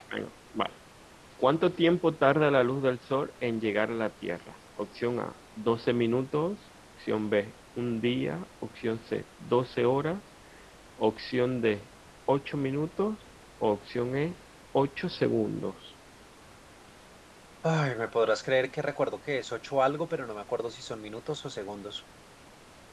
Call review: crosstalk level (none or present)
none